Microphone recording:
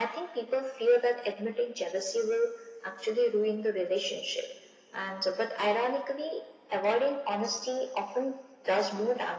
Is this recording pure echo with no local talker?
Yes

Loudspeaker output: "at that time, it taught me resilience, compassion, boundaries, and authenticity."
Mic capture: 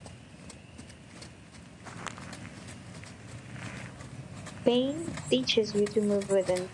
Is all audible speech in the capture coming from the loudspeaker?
No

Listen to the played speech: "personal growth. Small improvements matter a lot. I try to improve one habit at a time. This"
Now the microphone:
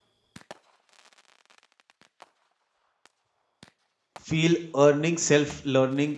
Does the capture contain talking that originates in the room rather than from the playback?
Yes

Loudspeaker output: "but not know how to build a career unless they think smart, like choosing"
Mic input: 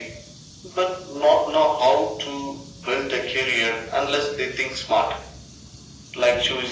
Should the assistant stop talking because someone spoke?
No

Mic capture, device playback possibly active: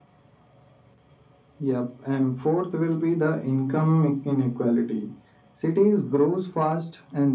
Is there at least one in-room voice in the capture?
No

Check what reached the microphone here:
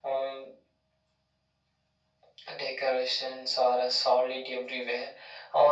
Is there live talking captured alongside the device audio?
No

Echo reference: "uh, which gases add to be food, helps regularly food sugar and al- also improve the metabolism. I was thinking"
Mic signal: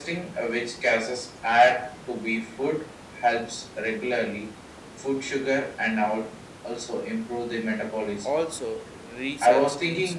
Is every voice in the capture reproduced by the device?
No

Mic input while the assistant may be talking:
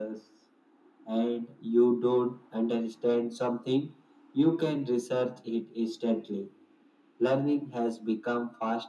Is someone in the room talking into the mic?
No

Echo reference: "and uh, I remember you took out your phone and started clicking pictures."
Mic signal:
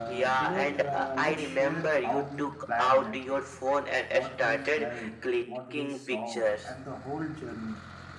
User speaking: Yes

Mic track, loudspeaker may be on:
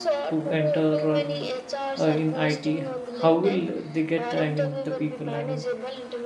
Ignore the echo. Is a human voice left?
Yes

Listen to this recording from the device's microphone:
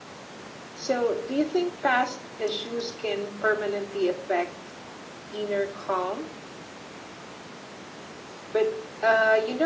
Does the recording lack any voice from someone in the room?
Yes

